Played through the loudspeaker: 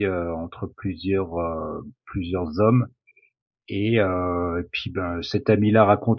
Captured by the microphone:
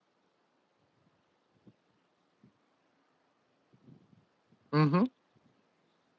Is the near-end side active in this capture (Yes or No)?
Yes